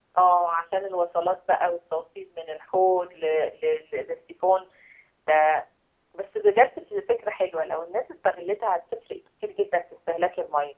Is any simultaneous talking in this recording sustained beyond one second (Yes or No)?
No